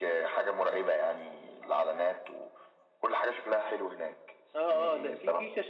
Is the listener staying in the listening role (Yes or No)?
No